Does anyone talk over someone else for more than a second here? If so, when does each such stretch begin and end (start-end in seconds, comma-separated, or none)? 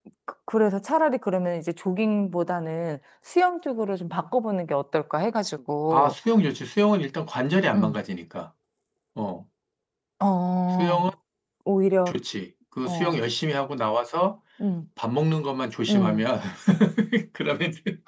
none